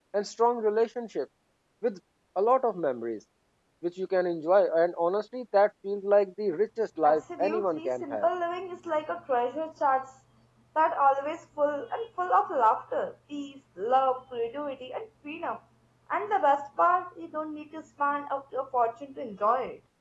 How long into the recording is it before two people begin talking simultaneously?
7 s

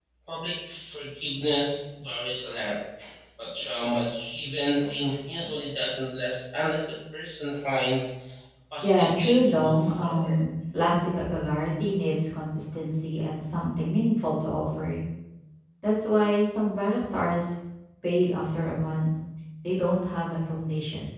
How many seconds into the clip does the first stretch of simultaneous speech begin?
9 s

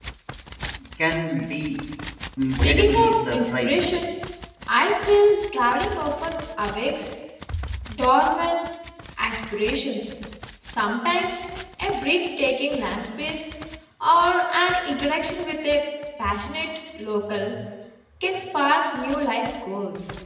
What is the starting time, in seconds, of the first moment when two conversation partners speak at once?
3 s

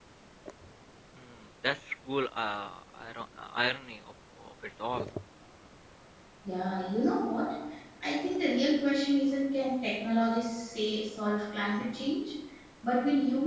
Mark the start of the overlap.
none

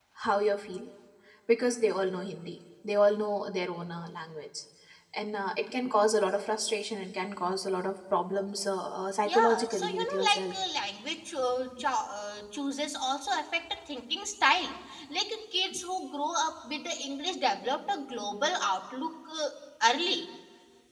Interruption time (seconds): 9 s

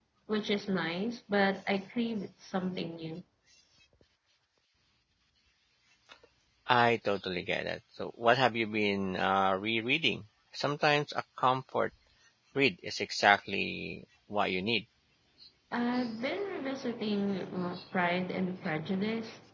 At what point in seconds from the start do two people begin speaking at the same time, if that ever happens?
none

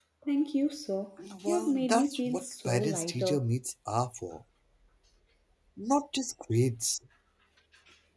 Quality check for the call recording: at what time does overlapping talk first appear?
1 s

